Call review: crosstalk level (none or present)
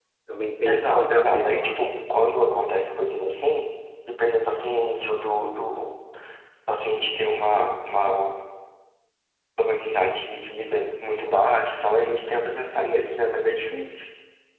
present